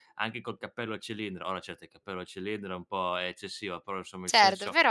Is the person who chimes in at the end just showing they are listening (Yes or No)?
Yes